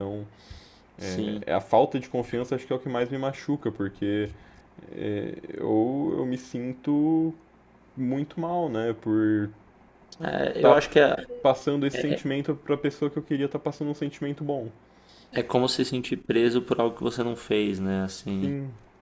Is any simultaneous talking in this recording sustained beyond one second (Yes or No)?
No